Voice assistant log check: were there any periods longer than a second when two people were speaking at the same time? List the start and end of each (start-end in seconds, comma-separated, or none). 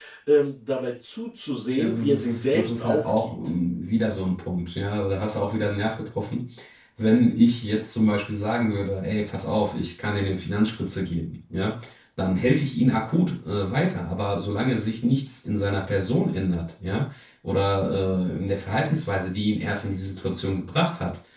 1.8-3.3